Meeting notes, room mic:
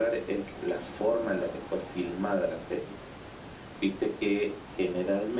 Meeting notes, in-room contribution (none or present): none